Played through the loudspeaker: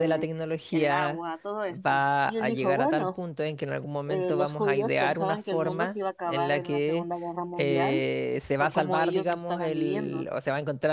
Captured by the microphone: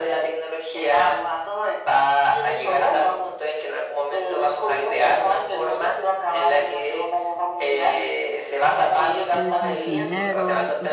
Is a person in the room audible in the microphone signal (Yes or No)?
Yes